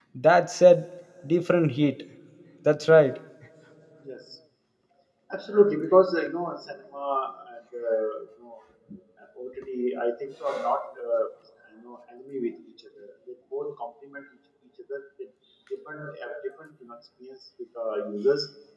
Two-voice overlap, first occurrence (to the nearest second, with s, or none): none